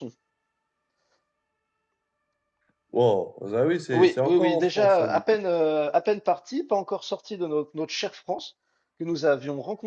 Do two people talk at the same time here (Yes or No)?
Yes